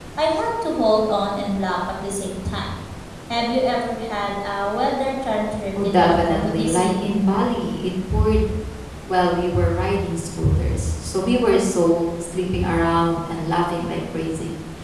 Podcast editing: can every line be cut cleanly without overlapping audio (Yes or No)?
No